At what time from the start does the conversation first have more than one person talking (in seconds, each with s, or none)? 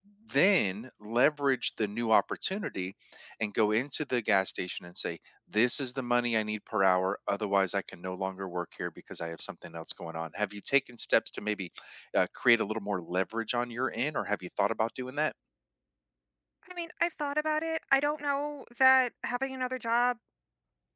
none